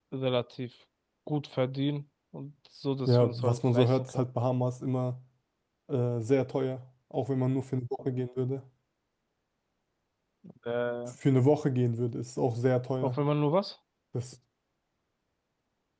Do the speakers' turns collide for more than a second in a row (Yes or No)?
Yes